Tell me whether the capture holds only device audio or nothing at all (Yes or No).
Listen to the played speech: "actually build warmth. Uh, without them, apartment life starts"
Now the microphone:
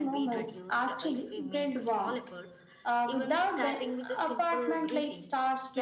No